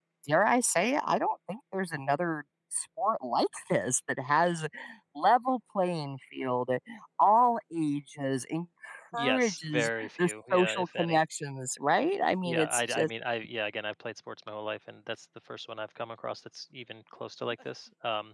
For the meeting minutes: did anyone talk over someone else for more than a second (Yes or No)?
Yes